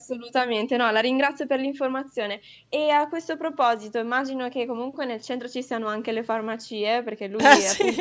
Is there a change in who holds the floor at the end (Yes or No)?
No